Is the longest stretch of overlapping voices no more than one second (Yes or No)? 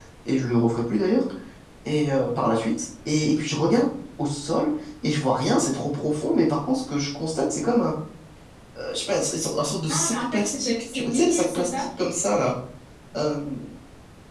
No